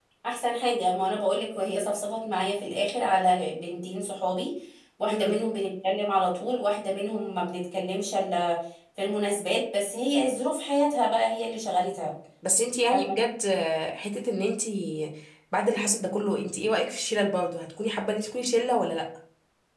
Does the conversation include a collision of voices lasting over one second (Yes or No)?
No